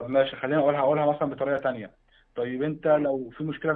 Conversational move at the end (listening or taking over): listening